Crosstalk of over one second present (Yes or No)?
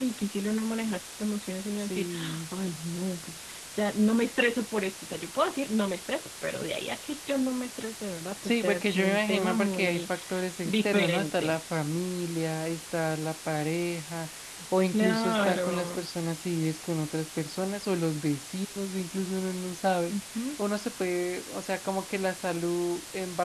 Yes